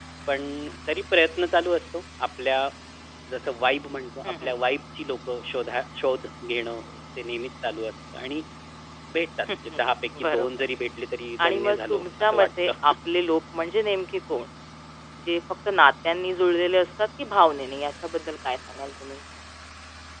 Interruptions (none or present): present